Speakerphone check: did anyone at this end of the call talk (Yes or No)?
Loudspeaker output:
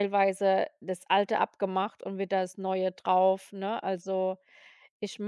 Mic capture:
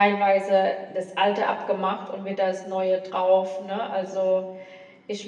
No